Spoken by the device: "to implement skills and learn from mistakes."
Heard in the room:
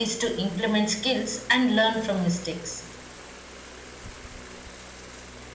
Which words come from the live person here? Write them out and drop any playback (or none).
none